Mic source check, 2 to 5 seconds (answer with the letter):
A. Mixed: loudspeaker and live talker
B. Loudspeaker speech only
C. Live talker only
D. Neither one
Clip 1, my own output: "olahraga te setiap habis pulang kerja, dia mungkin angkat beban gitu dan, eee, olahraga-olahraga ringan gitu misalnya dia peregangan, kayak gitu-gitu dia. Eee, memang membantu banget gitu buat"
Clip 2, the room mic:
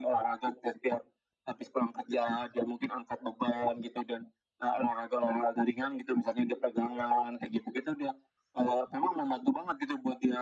B